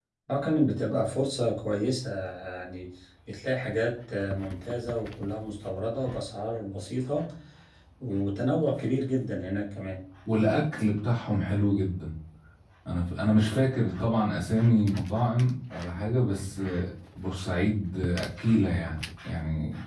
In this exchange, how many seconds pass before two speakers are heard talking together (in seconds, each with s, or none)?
none